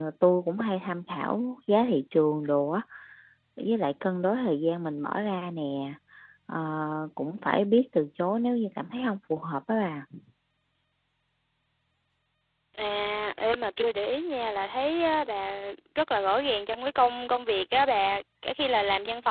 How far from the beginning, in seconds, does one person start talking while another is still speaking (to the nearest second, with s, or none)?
none